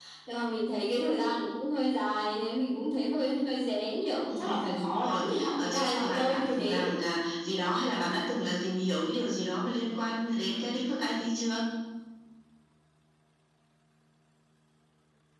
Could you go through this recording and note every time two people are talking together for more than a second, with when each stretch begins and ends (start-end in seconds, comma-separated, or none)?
4.3-6.8